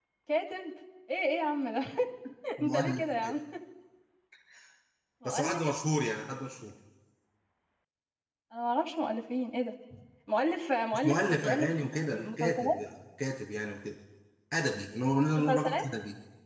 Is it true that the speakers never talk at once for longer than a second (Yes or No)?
No